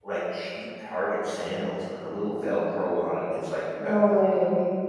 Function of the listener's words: listening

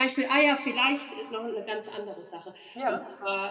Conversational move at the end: listening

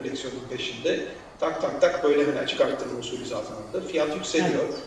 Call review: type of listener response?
listening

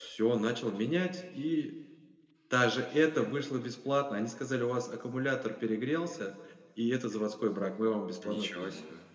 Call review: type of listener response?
taking over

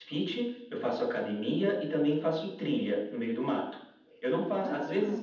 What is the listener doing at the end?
listening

